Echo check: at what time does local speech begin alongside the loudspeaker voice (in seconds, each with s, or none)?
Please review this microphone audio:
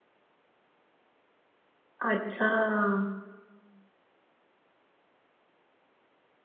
2.0 s